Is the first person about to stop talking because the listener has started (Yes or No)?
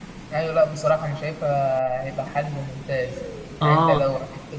No